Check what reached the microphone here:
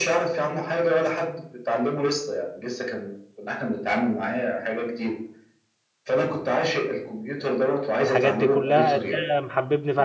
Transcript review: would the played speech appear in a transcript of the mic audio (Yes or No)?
Yes